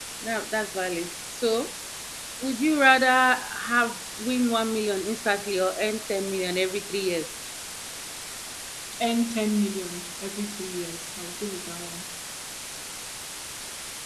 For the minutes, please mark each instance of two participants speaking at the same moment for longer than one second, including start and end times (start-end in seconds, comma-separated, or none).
none